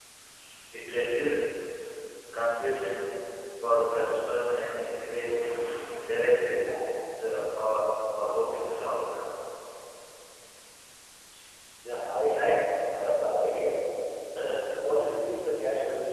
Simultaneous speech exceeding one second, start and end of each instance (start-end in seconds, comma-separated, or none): none